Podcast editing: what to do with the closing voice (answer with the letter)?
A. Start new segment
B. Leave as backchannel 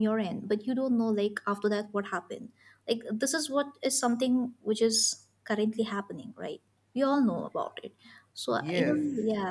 A